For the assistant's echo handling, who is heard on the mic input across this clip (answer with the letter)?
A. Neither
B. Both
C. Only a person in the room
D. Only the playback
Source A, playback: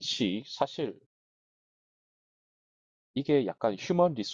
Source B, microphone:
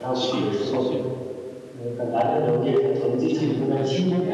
B